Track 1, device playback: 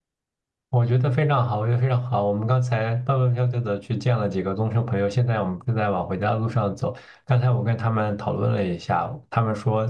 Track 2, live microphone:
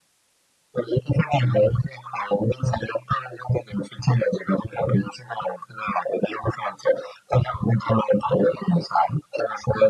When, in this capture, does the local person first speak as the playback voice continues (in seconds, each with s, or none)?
none